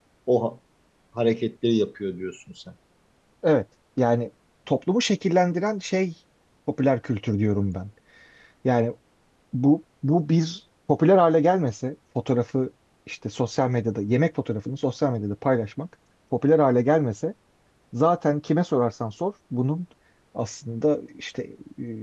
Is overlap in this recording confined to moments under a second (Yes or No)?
Yes